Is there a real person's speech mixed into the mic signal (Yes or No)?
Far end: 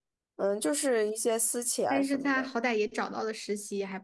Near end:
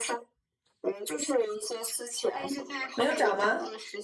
Yes